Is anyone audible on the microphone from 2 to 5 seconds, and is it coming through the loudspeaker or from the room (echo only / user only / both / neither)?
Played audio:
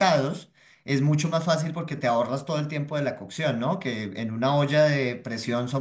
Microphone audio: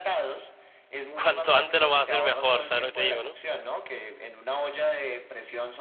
both